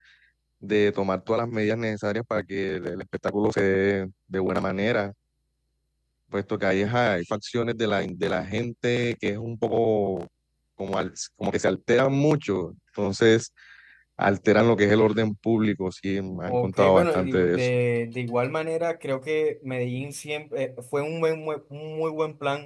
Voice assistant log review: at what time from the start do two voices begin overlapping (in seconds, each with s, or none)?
16.5 s